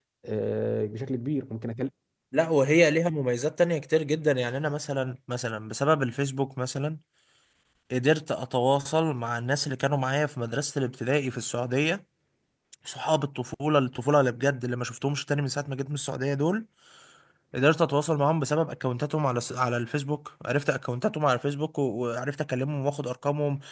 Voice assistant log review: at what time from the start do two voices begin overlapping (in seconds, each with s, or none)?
none